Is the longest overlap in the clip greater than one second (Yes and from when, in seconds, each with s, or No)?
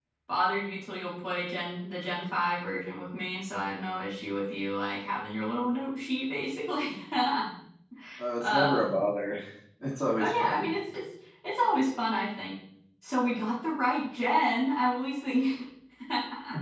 No